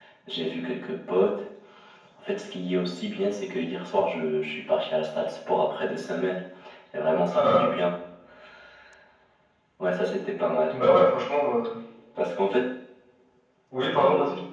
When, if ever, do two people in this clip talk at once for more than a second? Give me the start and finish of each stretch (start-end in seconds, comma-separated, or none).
none